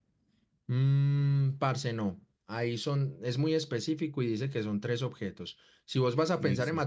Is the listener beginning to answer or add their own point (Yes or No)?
No